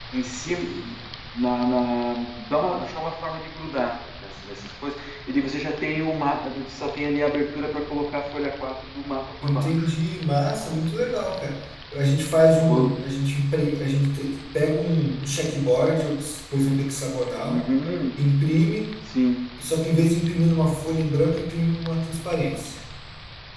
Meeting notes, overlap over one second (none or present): none